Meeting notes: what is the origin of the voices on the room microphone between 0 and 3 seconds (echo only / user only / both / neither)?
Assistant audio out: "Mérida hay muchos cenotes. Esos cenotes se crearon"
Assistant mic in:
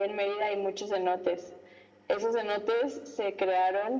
echo only